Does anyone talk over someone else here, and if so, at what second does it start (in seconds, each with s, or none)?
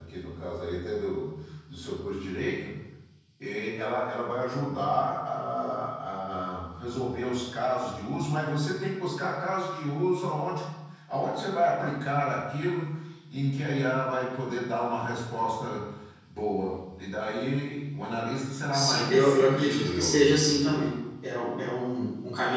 18.7 s